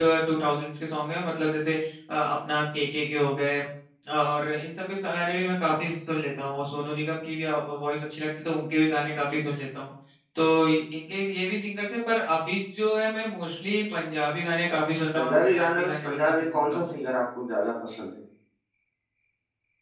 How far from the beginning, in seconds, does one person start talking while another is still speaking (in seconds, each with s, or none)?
15.1 s